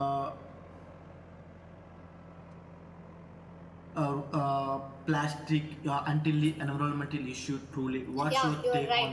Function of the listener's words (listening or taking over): taking over